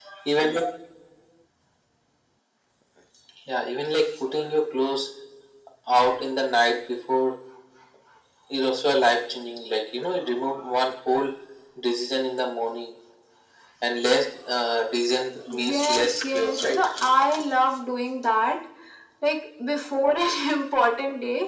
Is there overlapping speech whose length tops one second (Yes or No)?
Yes